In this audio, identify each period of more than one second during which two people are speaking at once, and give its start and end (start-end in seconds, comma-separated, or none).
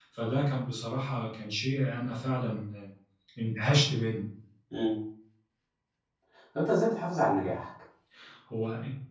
none